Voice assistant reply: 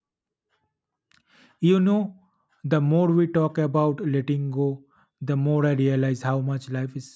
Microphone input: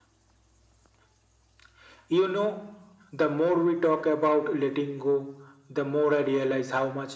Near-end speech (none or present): none